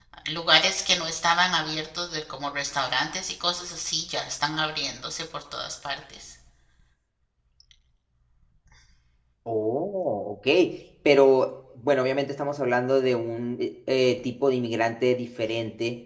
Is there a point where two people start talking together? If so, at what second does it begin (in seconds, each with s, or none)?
none